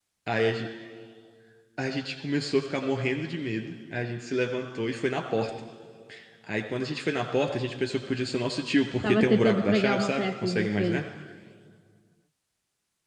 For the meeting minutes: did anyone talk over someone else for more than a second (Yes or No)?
Yes